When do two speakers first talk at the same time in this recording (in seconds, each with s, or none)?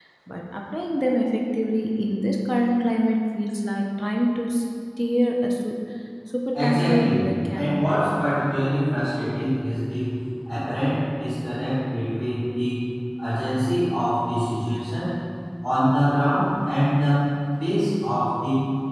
6.5 s